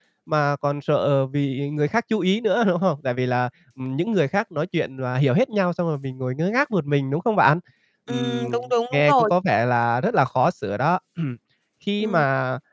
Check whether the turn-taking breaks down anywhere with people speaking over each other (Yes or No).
Yes